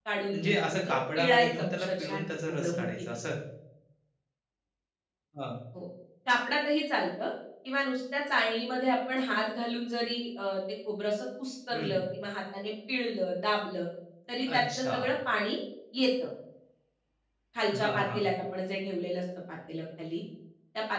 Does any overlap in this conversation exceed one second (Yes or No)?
Yes